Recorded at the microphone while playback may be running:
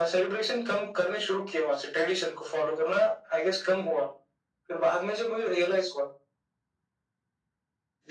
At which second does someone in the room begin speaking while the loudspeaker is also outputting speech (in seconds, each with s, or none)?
none